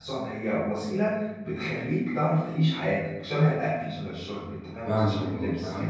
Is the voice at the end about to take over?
Yes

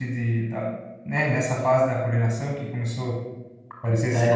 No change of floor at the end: No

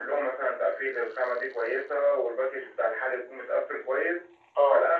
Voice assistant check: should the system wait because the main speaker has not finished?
Yes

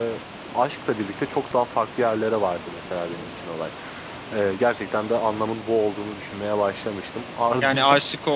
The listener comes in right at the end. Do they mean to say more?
Yes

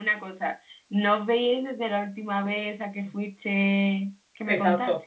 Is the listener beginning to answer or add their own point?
Yes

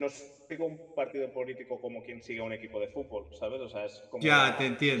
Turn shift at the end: Yes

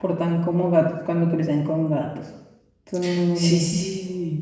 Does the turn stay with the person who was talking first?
No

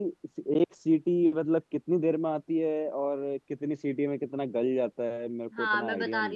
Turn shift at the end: Yes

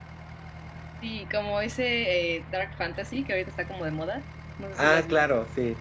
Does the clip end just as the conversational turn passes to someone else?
Yes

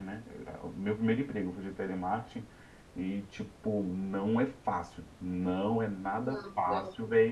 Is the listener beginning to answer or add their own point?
No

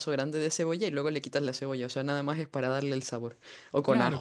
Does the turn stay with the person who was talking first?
No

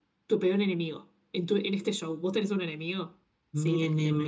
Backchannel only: No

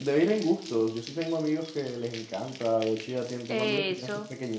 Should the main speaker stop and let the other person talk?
No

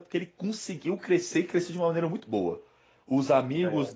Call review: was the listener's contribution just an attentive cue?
Yes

